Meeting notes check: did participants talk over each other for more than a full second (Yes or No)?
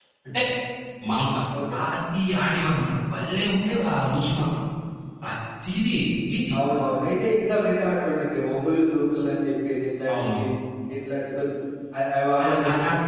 No